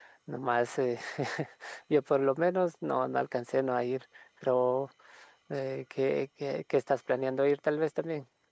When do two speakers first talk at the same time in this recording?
none

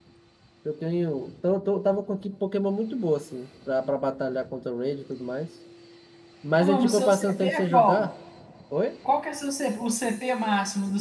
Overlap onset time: 6.6 s

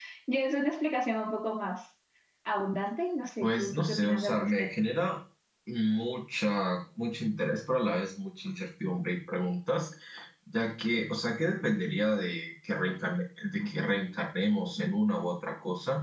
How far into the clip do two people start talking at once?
3.4 s

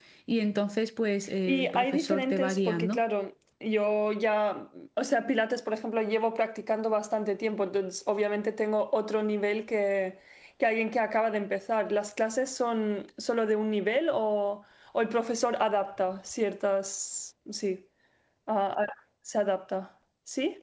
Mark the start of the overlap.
1.5 s

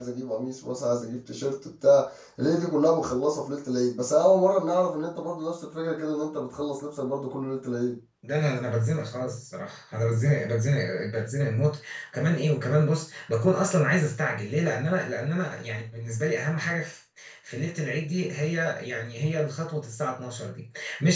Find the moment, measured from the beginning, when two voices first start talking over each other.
none

